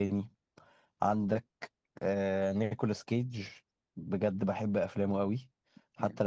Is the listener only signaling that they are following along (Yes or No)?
Yes